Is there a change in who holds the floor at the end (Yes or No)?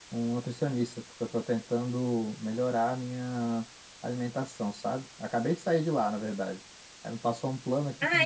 No